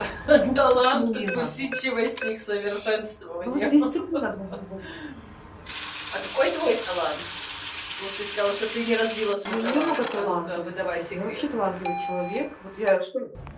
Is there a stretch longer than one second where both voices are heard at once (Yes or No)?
Yes